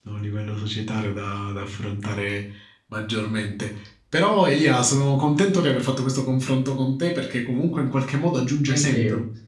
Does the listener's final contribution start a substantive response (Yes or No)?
No